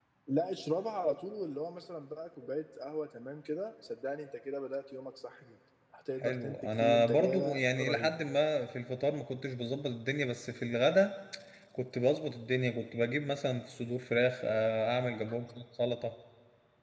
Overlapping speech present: Yes, from 6.2 s

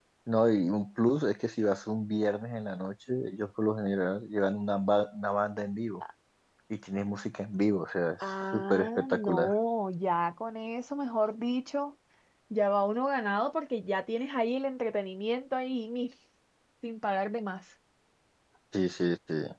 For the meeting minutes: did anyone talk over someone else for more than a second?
Yes, from 8.2 s

